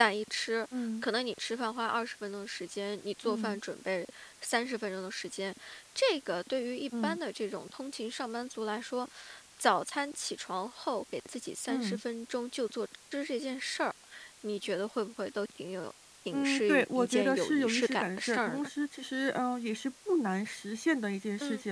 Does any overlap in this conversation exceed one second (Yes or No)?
Yes